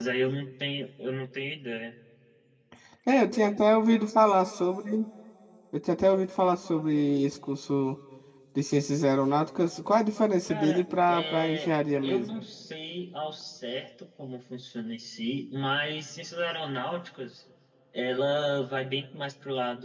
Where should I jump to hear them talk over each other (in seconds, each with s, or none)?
10.5 s